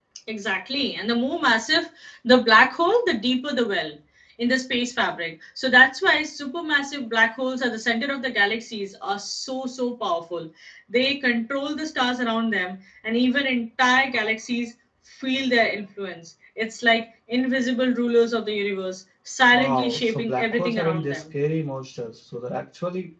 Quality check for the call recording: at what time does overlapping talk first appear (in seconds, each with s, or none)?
19.5 s